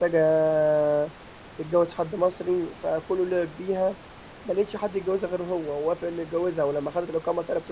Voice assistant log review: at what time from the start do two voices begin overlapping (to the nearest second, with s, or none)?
none